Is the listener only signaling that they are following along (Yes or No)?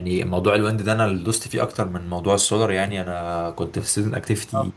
Yes